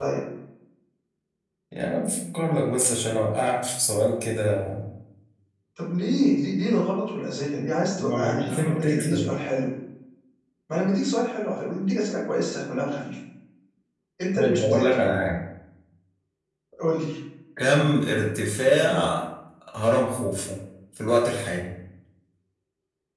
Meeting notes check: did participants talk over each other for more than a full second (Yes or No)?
Yes